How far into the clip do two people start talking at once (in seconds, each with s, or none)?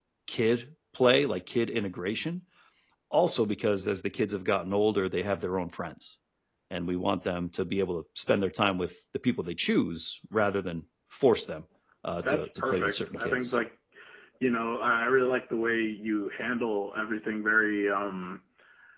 12.2 s